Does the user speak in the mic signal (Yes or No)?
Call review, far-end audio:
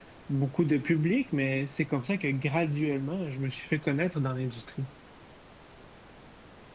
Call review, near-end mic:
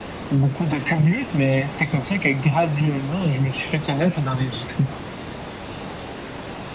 No